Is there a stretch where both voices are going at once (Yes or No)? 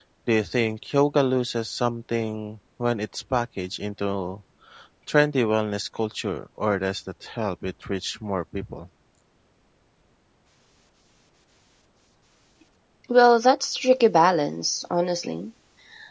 No